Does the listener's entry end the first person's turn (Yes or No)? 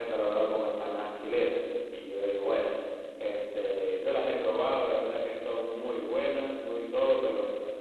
No